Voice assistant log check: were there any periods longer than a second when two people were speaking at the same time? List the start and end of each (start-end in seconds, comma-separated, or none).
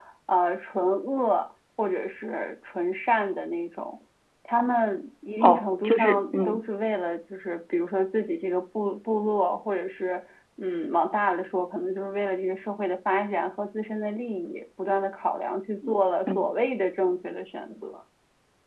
5.4-6.7